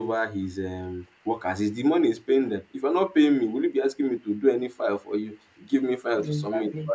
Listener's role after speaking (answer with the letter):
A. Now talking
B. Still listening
B